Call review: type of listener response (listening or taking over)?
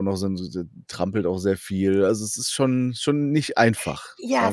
taking over